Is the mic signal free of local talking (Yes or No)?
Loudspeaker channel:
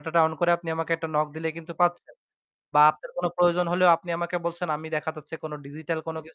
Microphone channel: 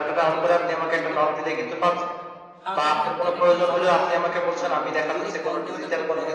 No